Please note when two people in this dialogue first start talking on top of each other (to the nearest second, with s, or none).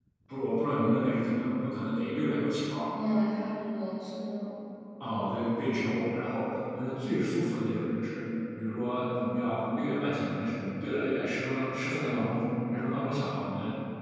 none